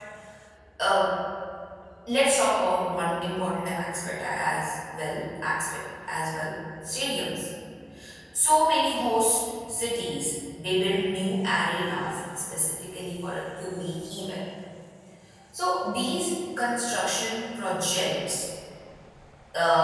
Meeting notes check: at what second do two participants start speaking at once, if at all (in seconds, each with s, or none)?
none